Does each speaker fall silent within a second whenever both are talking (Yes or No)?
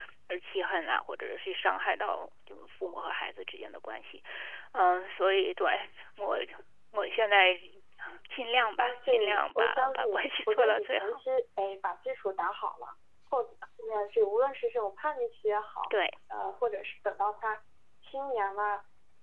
No